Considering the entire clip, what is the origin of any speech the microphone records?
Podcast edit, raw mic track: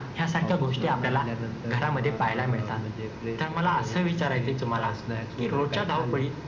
echo only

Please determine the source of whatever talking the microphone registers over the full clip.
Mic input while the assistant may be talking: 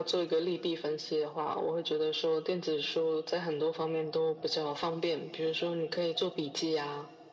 echo only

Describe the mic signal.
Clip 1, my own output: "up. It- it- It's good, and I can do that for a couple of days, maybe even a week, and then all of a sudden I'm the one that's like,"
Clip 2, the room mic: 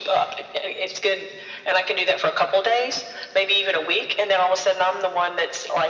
echo only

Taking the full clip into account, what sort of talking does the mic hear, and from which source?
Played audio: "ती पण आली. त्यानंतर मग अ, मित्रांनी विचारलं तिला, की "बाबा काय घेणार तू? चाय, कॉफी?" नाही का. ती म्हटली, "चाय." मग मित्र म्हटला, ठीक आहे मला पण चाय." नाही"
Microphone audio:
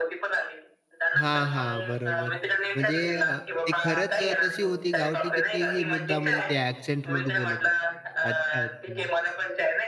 both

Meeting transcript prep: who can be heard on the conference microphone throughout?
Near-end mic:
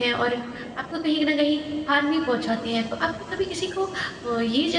user only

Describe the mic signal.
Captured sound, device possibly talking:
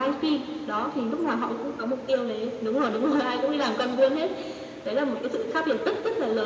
echo only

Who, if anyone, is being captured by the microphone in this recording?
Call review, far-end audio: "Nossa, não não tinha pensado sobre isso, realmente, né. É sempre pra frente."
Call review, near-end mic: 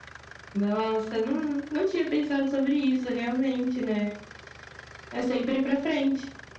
echo only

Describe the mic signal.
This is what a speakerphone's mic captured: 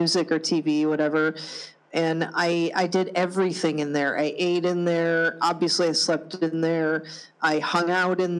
echo only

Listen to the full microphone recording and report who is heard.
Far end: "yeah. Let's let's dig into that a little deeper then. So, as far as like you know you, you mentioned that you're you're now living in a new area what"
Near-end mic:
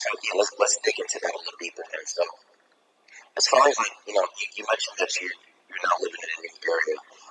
echo only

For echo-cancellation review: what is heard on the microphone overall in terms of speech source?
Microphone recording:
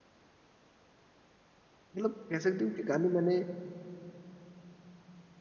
user only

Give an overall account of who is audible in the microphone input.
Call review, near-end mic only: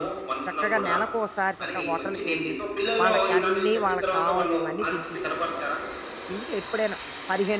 both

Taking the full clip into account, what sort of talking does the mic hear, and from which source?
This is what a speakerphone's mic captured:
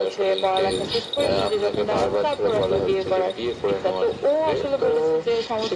echo only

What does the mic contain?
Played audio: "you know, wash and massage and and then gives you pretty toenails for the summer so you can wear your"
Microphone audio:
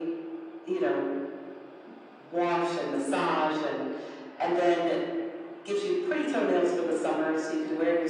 echo only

